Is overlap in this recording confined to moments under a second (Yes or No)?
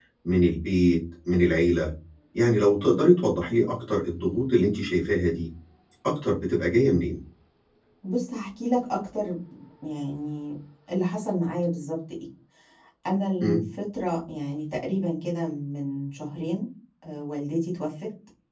Yes